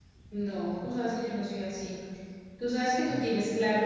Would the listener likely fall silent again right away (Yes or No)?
Yes